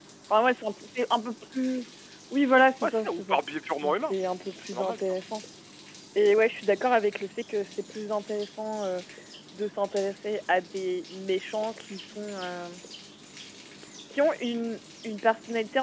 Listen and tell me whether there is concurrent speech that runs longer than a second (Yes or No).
No